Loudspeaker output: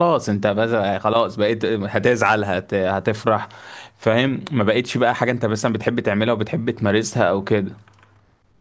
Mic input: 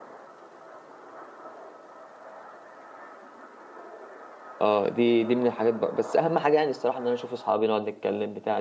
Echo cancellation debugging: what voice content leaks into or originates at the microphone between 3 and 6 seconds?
user only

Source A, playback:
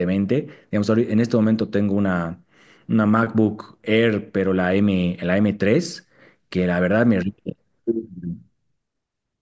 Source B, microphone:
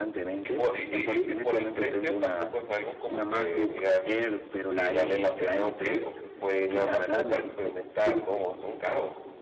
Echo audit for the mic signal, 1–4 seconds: both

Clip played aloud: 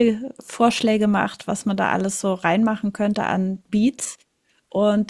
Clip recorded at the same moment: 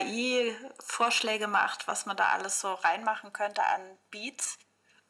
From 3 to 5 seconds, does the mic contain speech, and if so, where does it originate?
echo only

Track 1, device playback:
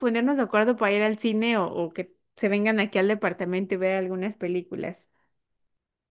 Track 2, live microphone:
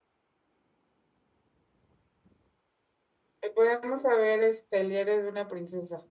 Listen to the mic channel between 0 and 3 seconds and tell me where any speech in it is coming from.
neither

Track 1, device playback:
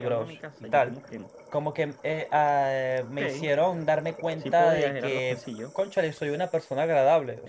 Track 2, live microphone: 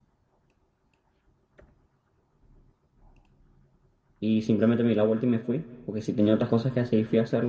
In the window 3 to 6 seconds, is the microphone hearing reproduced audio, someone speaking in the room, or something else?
user only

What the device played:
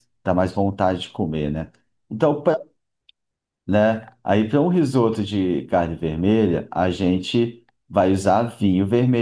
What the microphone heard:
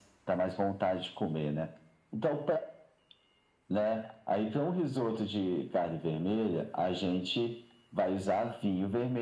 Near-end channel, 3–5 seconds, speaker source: echo only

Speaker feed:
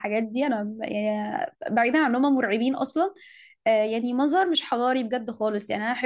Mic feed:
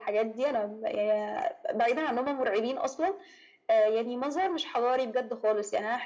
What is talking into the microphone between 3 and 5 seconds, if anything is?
echo only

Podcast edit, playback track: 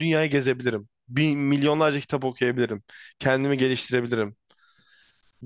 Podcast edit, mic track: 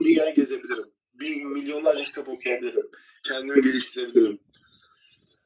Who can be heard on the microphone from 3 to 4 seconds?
echo only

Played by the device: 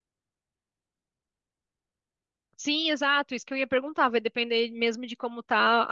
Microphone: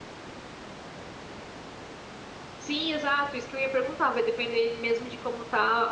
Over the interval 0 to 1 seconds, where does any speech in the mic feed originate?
neither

